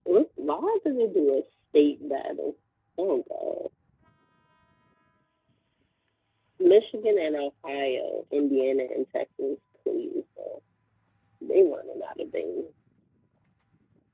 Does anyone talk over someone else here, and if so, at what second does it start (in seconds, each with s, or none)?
none